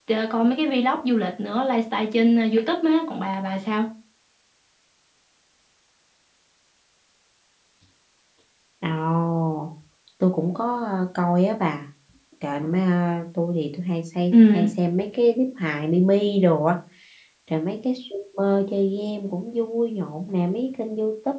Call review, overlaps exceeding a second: none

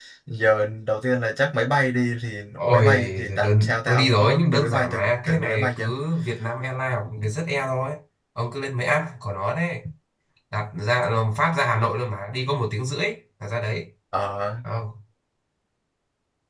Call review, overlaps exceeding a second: present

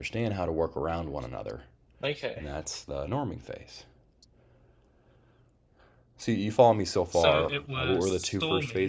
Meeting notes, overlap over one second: present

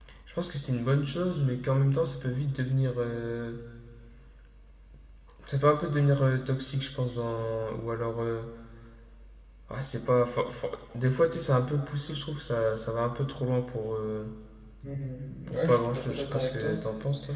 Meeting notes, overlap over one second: present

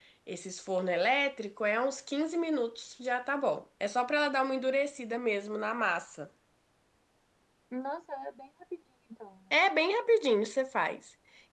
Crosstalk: none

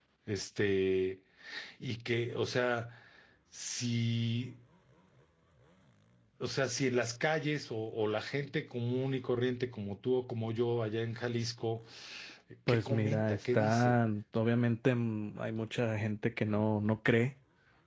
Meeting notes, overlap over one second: present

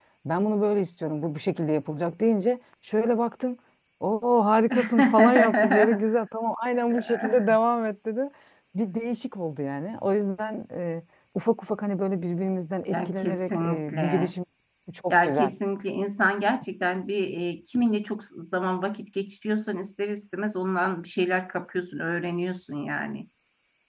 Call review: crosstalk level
present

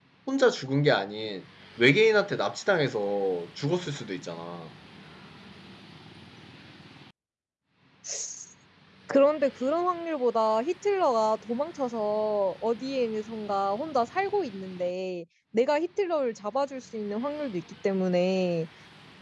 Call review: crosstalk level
none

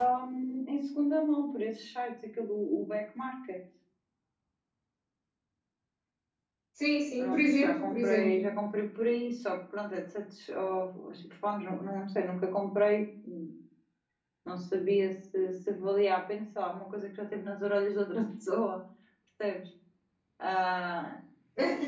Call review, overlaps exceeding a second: present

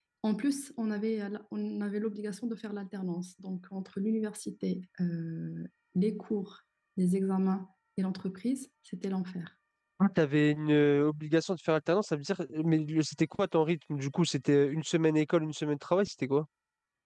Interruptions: none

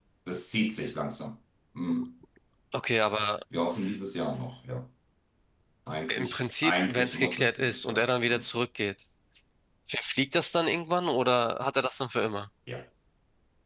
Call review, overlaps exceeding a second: present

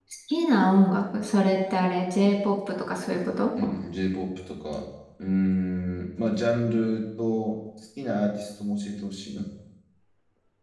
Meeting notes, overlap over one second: none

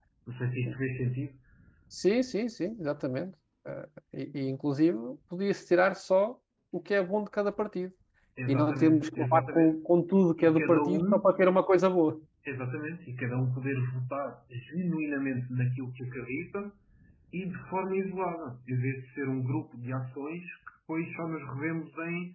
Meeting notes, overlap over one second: present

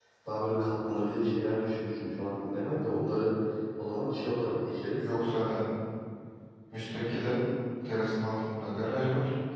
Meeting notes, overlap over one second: none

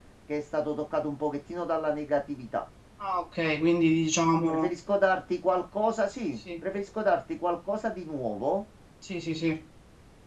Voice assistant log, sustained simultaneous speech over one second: none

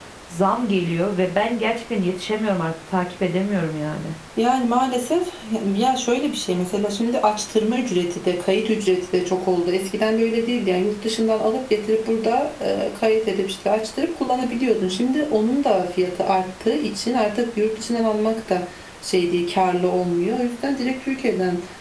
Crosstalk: none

